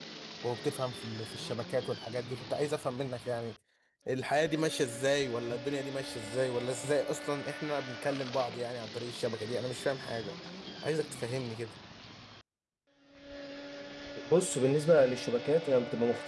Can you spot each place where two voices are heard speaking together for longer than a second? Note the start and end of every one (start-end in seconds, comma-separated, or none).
none